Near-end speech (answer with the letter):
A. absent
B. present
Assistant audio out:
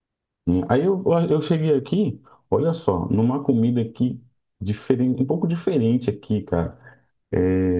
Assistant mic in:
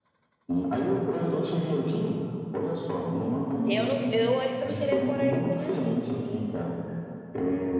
B